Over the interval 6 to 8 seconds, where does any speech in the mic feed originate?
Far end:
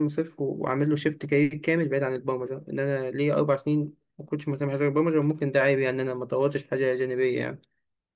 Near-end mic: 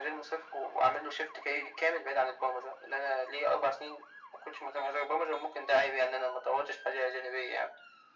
echo only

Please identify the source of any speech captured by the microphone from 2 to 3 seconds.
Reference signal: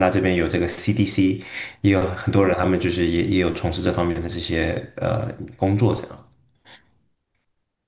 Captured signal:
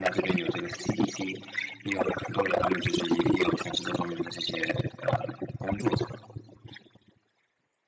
echo only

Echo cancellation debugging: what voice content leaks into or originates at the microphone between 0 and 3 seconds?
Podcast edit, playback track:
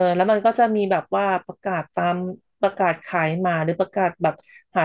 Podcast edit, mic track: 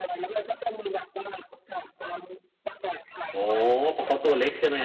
echo only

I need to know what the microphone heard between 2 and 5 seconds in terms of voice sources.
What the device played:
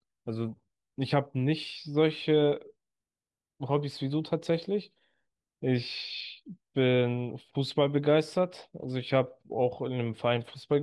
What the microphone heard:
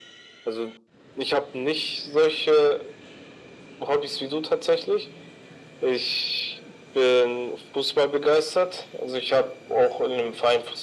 echo only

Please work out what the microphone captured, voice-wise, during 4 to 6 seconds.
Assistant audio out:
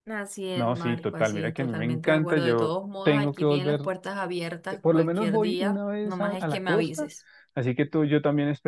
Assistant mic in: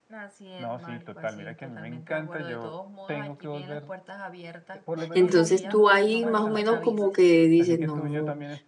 both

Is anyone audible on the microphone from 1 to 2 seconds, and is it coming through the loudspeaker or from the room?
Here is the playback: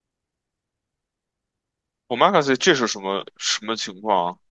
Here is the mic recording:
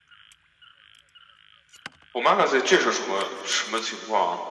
neither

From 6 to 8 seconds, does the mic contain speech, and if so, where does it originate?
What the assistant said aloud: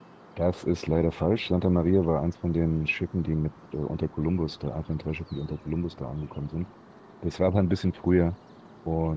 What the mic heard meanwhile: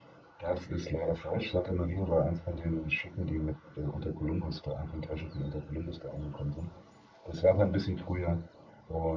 echo only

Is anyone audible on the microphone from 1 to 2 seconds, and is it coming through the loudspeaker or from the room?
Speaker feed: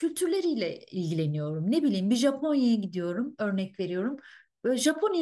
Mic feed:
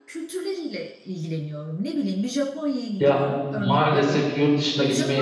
echo only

